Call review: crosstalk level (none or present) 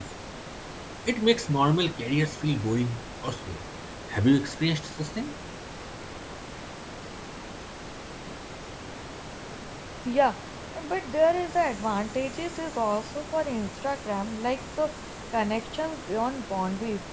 none